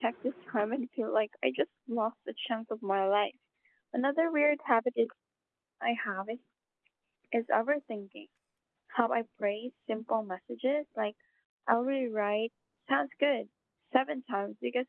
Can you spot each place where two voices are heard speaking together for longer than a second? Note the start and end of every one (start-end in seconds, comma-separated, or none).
none